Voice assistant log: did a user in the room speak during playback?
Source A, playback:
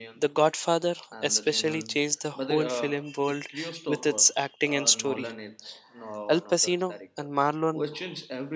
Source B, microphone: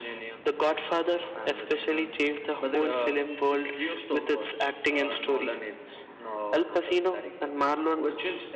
No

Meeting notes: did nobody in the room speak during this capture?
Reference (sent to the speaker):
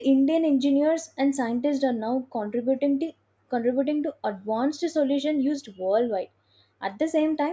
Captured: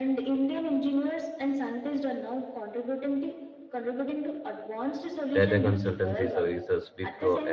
No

